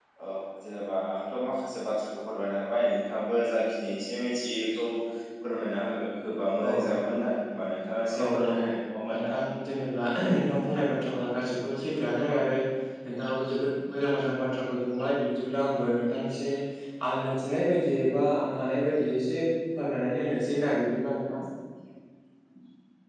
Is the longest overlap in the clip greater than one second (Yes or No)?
No